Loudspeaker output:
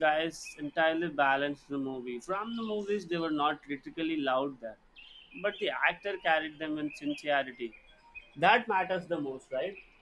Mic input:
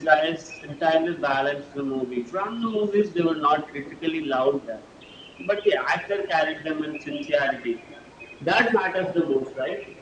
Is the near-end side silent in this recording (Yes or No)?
Yes